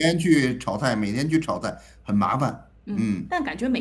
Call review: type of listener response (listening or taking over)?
taking over